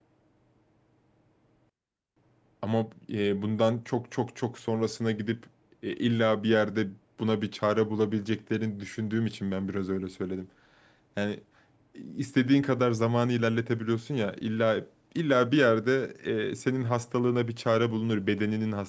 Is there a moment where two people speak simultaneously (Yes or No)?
No